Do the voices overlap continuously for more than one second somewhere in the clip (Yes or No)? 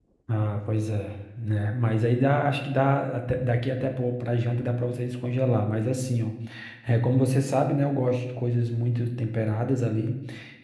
No